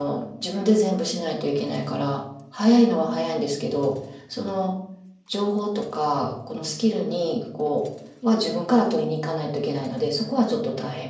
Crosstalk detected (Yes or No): No